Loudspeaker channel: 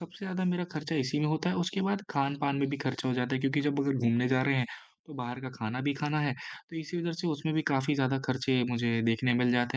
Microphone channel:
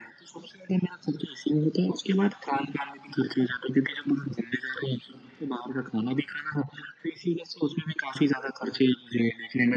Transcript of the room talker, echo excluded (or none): none